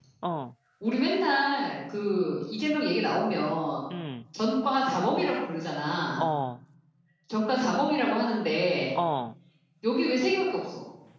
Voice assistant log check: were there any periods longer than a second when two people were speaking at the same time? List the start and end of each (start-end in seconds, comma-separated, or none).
none